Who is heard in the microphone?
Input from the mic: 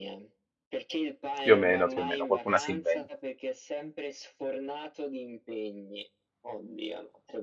both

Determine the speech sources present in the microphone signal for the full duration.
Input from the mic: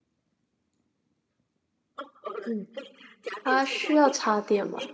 both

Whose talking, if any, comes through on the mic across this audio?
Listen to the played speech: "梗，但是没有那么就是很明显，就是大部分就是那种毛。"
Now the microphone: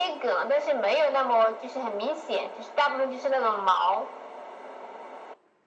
echo only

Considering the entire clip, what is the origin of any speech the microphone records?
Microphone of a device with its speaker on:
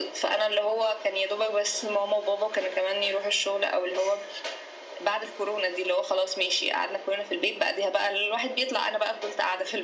echo only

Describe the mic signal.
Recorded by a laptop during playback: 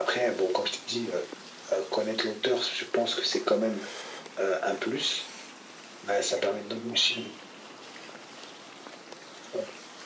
echo only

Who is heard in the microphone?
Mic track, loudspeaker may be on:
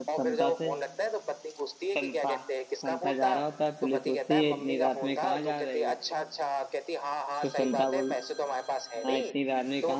both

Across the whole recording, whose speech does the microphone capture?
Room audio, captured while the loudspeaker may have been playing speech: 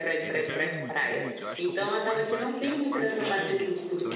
both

